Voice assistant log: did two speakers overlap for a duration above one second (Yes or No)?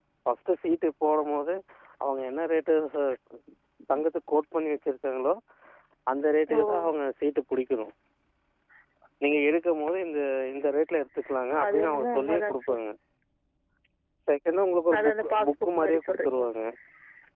Yes